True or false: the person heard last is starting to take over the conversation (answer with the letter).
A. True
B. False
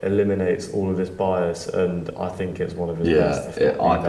A